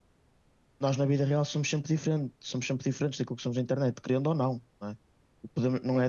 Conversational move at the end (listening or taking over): listening